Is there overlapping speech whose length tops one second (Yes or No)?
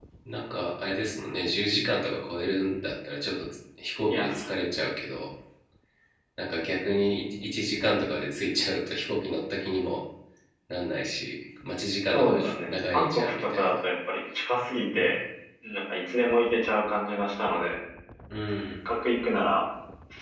Yes